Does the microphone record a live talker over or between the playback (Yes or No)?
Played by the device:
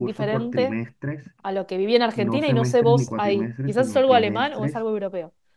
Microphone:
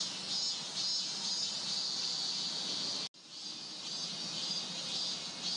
No